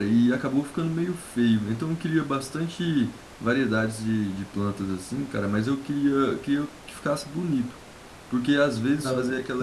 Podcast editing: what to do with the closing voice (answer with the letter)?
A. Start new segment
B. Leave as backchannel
B